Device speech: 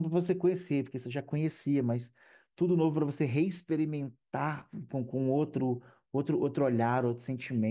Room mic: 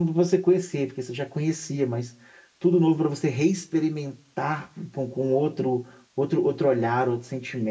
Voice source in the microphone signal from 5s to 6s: echo only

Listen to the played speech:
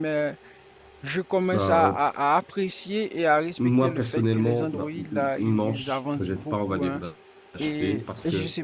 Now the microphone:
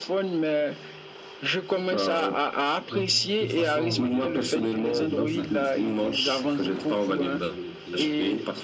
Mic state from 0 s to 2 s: echo only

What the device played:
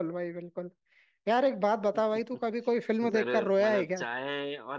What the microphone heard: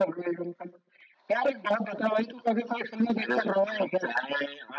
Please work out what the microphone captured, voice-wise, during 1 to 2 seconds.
echo only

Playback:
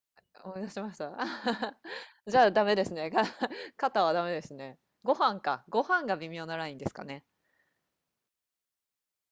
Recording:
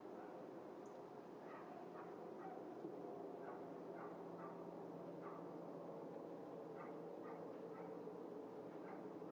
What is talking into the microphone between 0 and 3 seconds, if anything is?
neither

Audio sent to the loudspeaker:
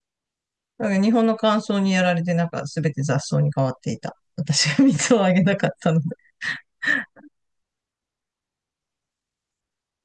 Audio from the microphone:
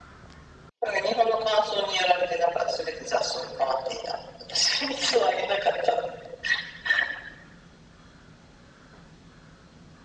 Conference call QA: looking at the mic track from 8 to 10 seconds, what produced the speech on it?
neither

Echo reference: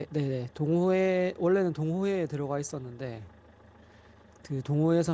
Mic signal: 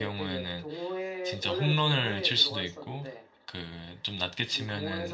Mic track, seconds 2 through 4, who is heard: both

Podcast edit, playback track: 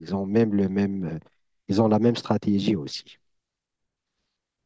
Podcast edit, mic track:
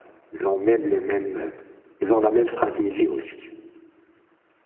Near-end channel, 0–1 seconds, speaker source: echo only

